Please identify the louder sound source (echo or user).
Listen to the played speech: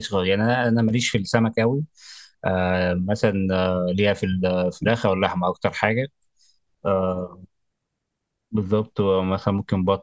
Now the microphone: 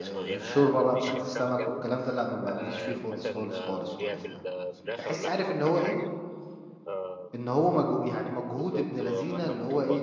user